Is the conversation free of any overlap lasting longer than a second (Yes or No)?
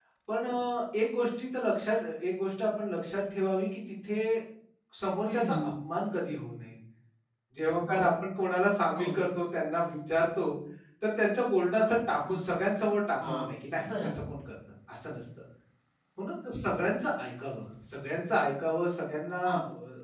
Yes